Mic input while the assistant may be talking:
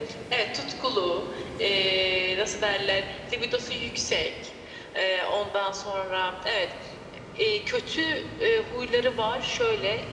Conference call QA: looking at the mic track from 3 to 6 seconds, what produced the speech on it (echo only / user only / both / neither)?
echo only